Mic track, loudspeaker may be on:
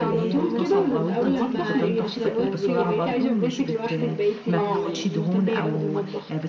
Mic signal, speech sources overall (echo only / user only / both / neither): both